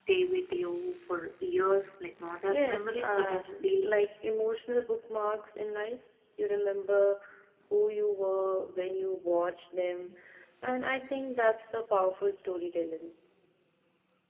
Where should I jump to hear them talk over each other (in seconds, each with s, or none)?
2.5 s